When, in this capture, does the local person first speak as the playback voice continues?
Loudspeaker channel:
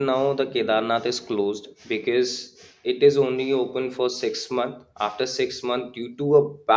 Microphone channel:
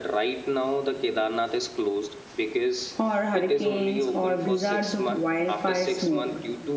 3.0 s

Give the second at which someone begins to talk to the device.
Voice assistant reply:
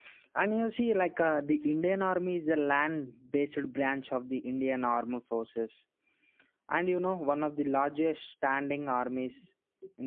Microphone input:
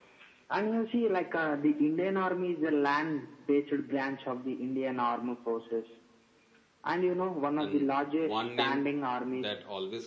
7.6 s

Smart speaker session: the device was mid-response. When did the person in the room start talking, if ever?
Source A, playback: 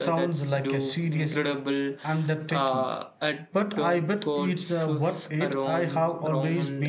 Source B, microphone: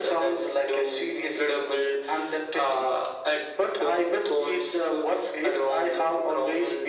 none

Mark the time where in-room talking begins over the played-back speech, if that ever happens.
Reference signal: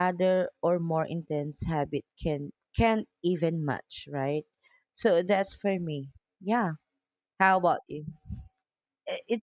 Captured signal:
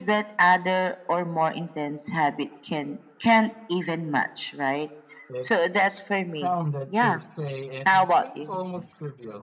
5.3 s

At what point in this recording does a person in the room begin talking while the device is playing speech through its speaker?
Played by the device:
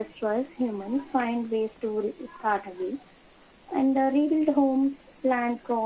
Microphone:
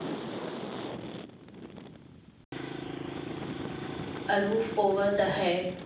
4.3 s

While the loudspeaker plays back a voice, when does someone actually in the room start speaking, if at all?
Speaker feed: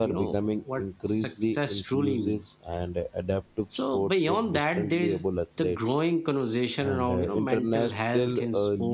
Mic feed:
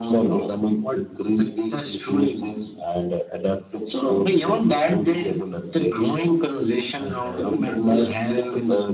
none

